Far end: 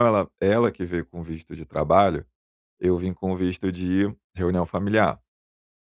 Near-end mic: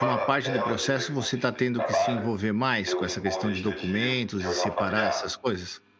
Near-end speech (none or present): present